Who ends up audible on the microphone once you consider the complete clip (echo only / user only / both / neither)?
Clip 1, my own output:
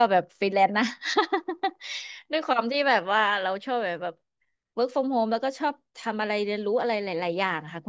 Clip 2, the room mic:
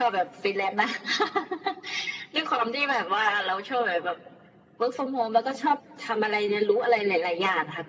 echo only